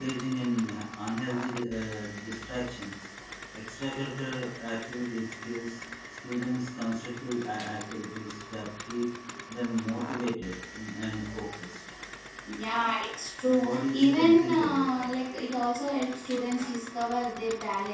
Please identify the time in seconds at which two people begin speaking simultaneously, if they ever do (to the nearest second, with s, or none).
13 s